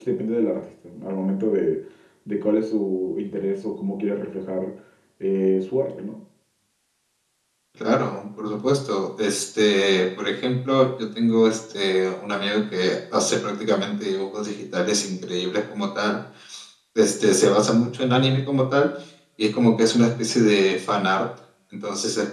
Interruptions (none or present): none